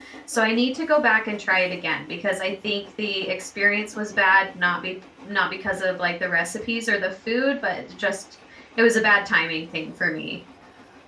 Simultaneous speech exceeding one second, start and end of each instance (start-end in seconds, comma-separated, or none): none